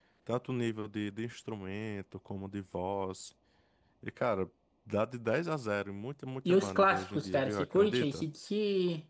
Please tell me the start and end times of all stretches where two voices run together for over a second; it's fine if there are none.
6.5-8.2

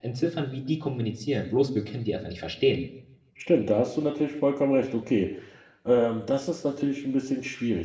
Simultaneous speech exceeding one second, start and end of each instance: none

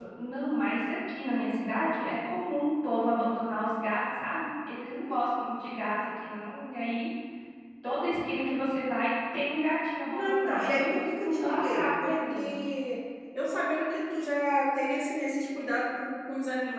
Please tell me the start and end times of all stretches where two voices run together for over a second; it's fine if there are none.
10.1-12.6

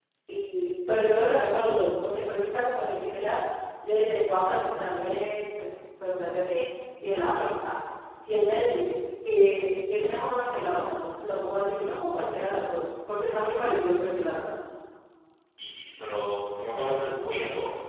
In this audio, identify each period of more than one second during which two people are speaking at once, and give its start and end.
none

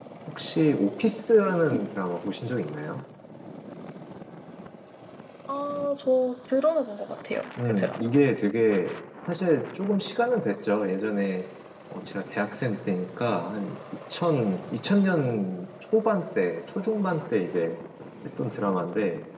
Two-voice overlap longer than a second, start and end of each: none

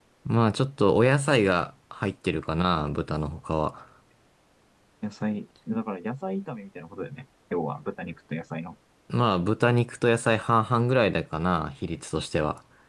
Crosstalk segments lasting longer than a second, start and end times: none

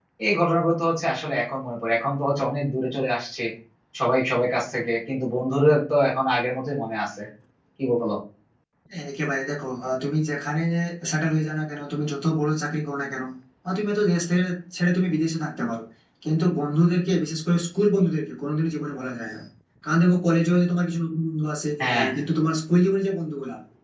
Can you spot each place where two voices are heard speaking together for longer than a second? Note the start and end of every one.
none

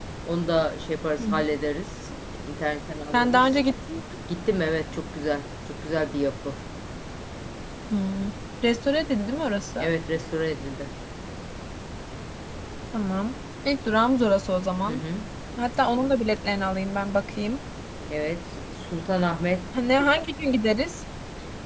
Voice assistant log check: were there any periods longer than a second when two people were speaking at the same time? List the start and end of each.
none

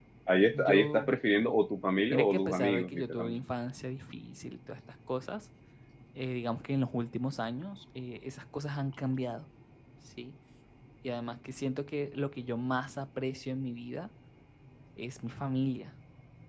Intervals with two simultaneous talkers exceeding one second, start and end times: 2.1-3.4

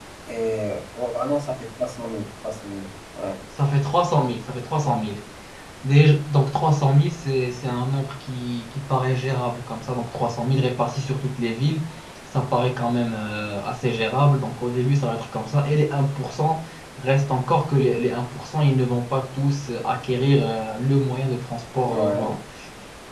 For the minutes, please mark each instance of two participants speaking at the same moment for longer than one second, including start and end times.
none

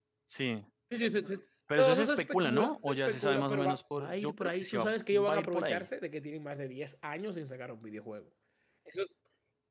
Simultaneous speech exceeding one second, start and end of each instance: 1.8-5.9

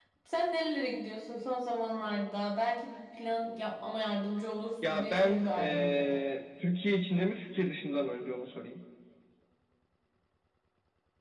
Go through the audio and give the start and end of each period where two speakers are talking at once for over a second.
4.8-6.2

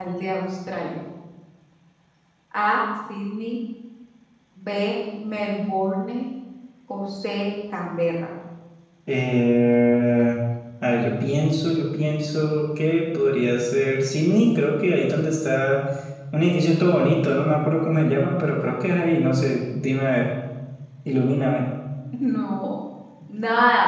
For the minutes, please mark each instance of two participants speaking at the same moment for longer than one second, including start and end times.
none

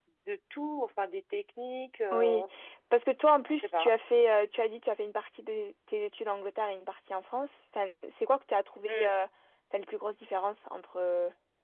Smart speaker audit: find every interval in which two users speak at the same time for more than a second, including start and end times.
none

